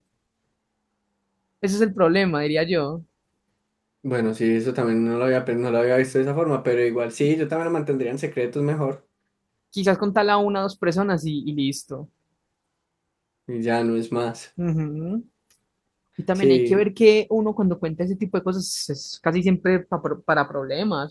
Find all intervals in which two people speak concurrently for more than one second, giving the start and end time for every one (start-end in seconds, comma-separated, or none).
none